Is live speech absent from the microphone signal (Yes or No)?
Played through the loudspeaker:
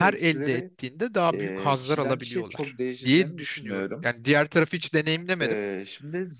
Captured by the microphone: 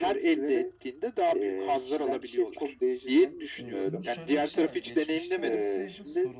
No